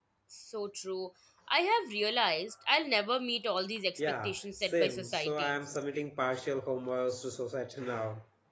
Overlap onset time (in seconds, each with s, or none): 4.0 s